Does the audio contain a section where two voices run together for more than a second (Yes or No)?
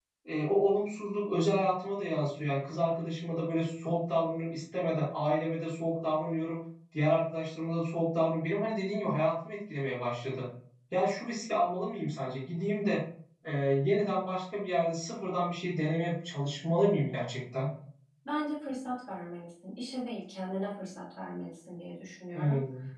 No